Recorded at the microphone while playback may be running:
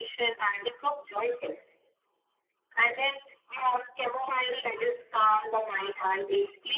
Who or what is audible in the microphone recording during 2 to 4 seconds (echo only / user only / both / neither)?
echo only